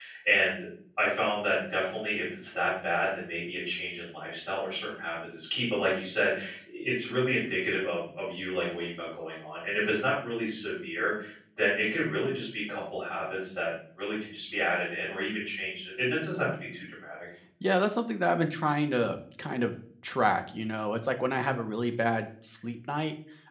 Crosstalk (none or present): none